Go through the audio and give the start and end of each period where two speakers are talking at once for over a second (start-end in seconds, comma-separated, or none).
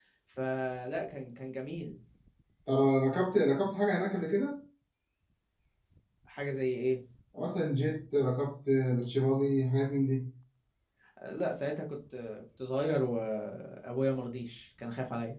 none